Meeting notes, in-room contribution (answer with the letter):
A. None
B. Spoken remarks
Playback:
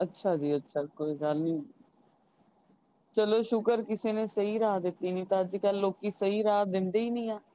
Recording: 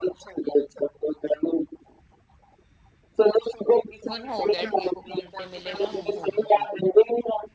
B